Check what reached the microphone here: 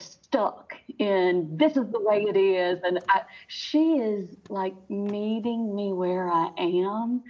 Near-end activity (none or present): none